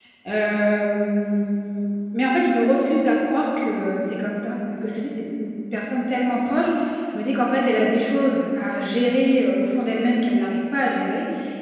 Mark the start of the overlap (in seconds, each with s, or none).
none